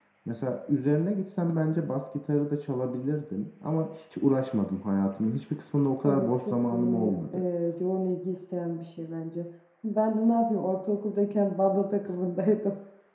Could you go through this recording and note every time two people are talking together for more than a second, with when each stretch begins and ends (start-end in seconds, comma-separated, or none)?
6.0-7.4